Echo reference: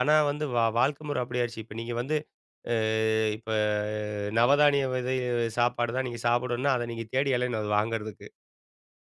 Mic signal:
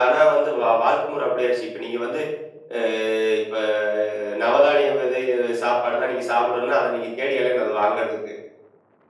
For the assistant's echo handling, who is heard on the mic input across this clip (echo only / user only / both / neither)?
echo only